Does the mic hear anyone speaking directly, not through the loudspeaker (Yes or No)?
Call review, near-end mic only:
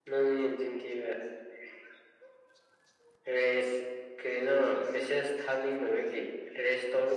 No